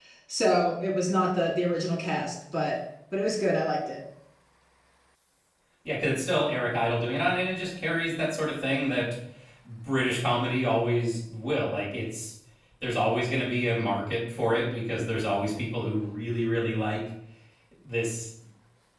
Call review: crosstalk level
none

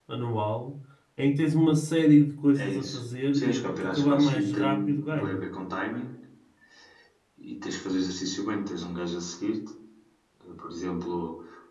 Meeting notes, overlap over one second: present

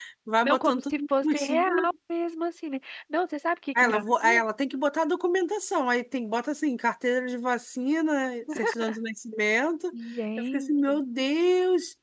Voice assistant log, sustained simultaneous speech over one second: present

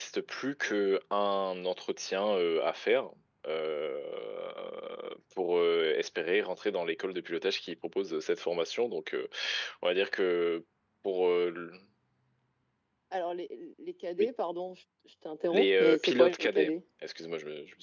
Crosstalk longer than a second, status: present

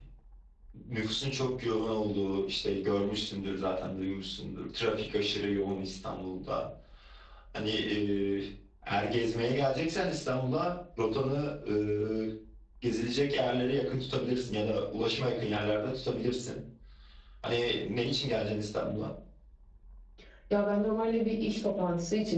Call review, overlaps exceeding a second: none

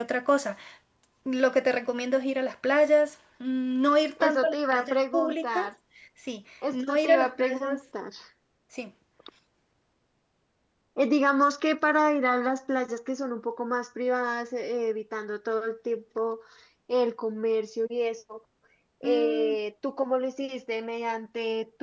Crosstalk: present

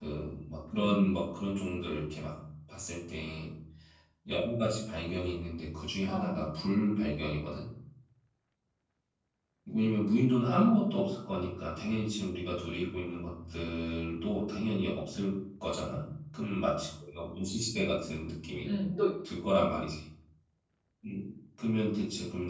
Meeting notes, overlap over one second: none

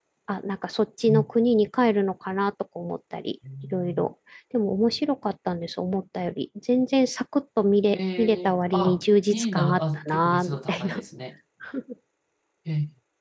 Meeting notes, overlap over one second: present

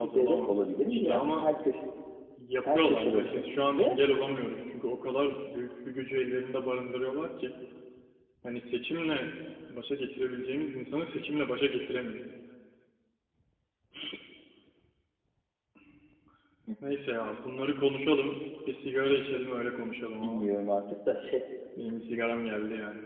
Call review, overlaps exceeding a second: present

